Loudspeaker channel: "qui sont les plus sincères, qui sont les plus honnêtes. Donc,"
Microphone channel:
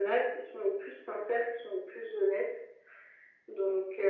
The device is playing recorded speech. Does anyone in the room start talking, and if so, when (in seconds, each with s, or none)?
none